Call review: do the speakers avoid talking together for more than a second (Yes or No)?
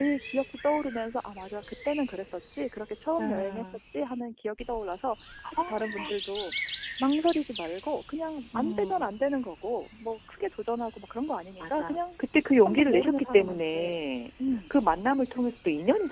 No